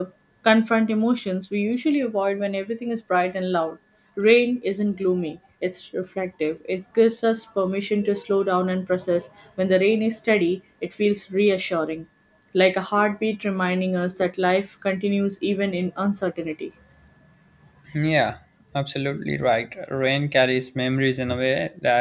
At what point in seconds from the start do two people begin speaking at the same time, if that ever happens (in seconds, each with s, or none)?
none